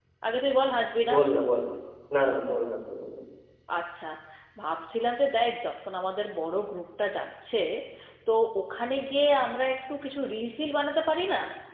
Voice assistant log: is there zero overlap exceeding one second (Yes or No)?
Yes